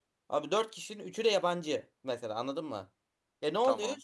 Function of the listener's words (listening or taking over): listening